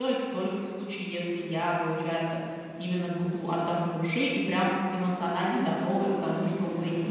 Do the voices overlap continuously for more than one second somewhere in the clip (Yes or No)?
Yes